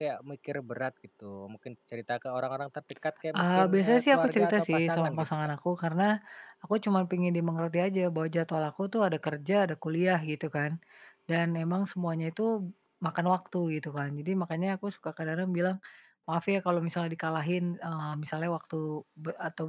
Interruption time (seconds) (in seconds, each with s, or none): 3.4 s